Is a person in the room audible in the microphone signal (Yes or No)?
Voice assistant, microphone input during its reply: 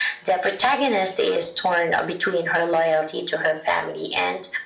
No